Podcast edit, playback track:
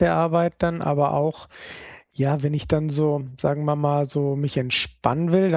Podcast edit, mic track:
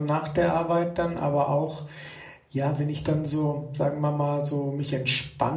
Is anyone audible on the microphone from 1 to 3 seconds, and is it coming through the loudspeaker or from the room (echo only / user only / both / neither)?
echo only